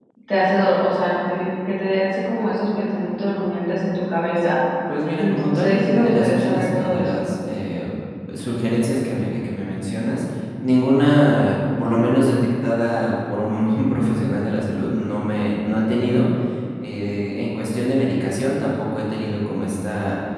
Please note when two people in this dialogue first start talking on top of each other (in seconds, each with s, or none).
5.2 s